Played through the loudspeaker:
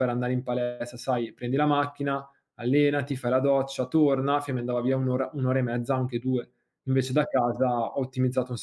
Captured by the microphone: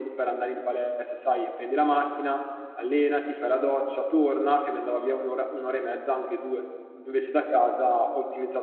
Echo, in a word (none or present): present